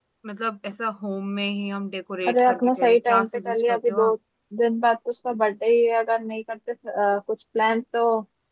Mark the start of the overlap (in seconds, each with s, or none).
2.3 s